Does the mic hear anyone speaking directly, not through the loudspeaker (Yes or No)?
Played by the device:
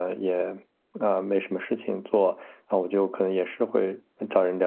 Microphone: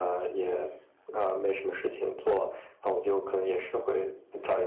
No